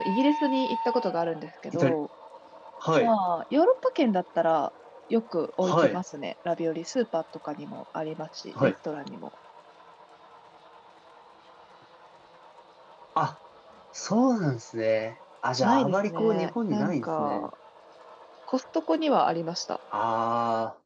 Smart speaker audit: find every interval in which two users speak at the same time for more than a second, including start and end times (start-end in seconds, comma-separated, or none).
15.6-17.5